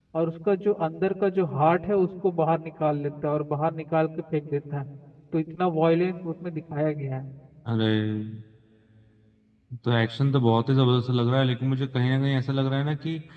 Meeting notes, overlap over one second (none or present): none